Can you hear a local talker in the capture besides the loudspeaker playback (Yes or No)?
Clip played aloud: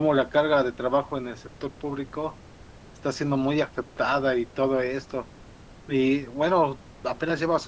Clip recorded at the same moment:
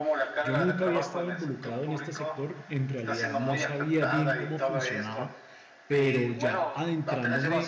Yes